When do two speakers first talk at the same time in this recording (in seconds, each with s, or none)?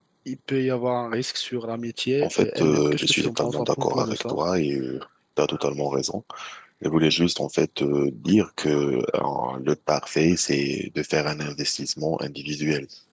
2.2 s